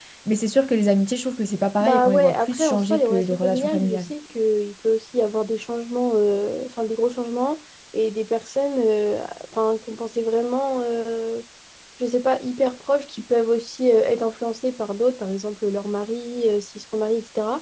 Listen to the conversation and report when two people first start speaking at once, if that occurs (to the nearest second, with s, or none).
2 s